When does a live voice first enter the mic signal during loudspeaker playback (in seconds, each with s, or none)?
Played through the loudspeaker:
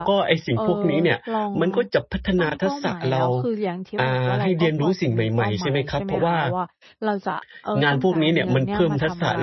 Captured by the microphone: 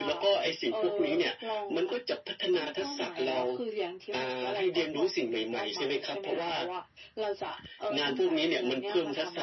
none